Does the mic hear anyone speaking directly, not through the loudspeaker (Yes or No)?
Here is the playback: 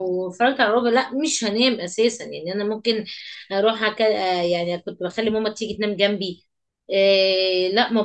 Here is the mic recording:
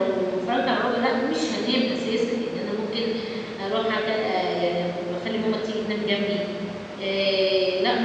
No